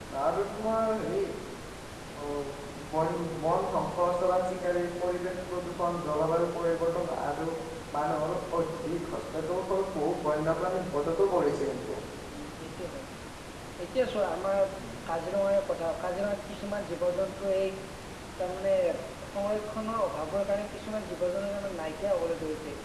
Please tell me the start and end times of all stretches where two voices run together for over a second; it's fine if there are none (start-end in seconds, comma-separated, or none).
none